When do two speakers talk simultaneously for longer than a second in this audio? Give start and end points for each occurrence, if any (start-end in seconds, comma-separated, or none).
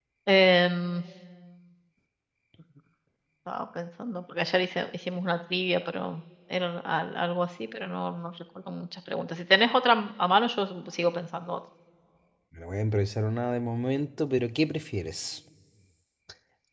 none